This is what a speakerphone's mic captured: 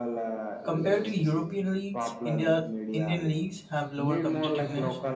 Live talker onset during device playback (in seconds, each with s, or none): 0.6 s